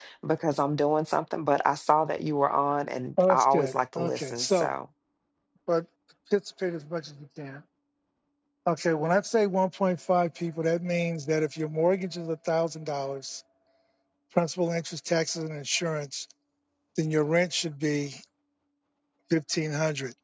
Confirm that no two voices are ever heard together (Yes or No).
No